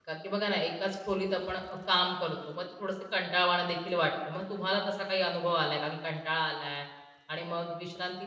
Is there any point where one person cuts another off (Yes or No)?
No